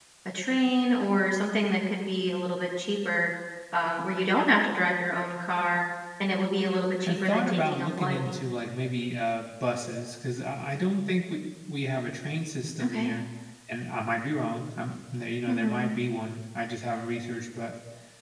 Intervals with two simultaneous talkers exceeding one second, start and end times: 7.1-8.3

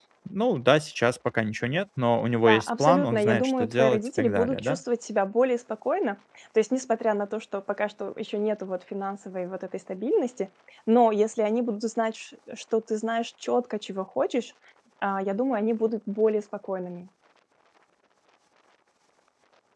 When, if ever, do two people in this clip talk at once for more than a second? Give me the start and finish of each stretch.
2.4-4.8

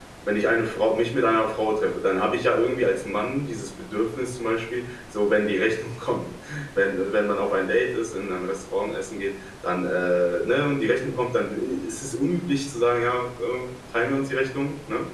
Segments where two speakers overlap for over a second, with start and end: none

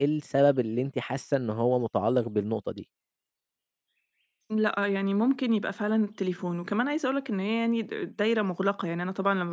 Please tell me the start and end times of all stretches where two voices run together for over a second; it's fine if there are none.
none

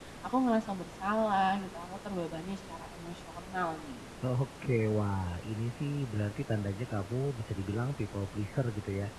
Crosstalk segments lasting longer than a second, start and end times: none

